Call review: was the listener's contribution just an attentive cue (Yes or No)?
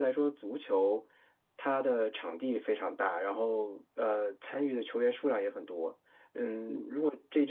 Yes